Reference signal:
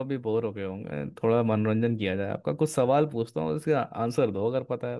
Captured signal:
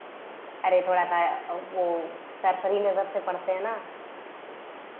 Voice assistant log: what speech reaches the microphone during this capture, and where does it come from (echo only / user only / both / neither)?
user only